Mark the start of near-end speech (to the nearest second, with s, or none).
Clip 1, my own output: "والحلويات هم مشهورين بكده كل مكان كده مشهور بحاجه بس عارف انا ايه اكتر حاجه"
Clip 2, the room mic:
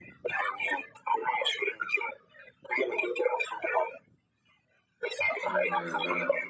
5 s